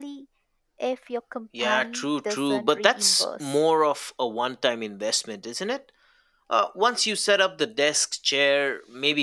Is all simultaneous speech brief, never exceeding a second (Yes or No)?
No